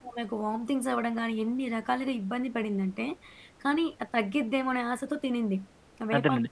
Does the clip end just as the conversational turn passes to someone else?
Yes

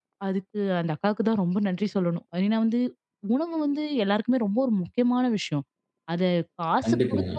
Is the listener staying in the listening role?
Yes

